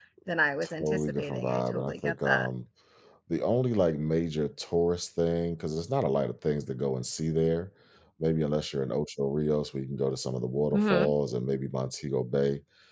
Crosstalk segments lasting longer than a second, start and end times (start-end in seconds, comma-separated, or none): 0.6-2.5